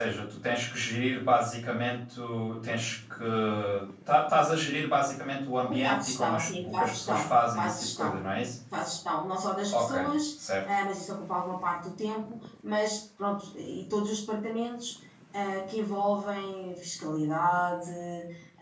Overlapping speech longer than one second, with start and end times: 5.7-8.2

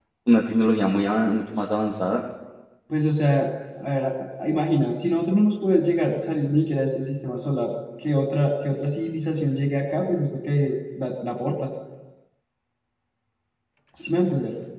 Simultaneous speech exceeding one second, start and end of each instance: none

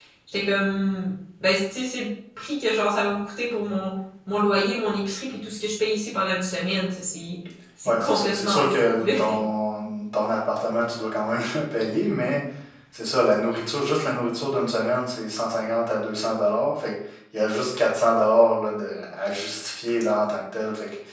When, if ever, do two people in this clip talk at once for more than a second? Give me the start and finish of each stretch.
7.8-9.1

